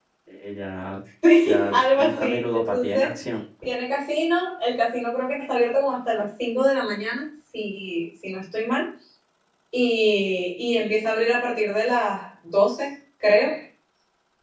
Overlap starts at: 1.7 s

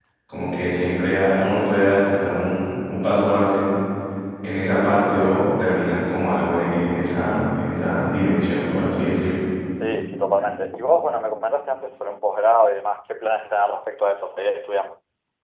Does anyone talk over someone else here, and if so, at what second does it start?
none

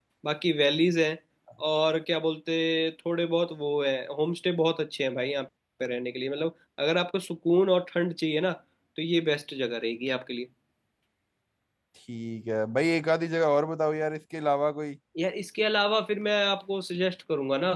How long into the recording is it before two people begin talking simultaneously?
none

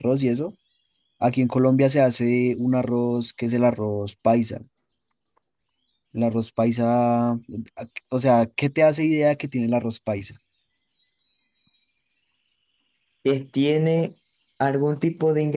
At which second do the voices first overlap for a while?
none

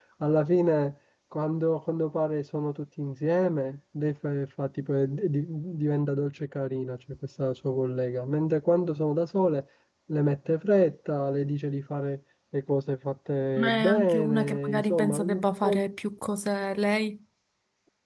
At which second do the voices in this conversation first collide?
13.6 s

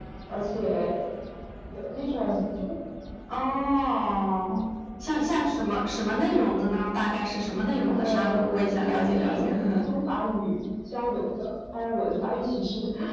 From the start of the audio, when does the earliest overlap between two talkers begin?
7.9 s

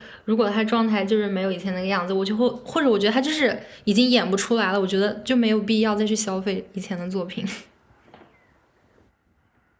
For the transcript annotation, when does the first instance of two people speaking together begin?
none

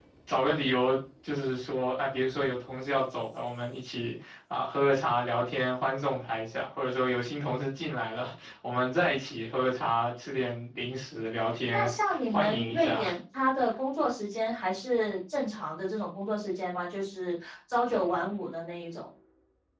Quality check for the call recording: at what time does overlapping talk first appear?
11.7 s

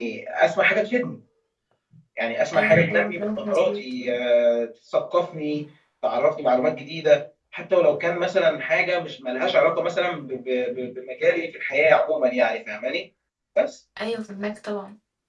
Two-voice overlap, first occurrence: 2.5 s

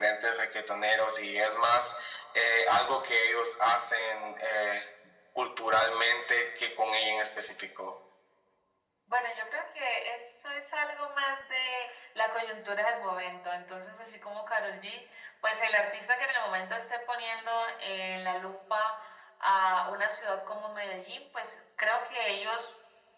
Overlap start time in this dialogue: none

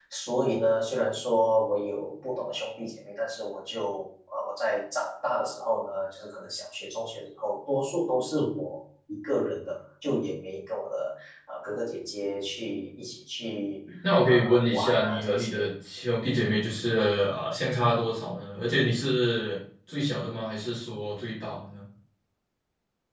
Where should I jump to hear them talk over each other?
14.2 s

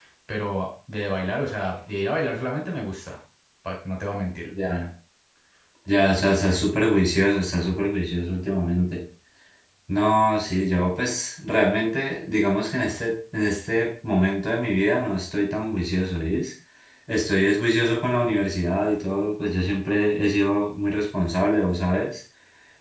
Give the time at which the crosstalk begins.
none

